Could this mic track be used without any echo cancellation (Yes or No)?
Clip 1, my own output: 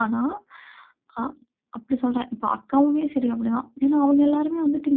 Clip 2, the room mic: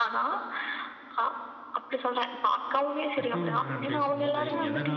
No